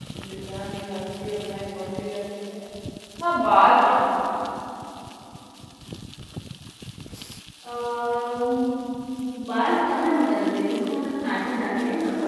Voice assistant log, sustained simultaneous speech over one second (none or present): none